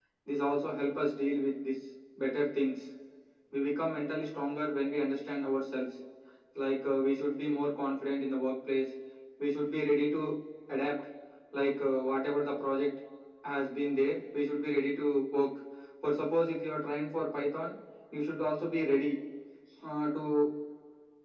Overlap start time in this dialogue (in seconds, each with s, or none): none